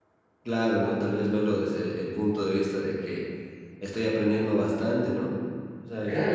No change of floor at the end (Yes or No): No